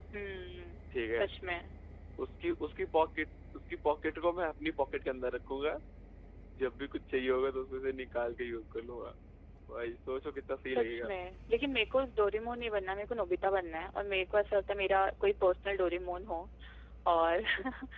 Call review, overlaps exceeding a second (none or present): none